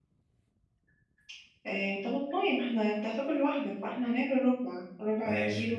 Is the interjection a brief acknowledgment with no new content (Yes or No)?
No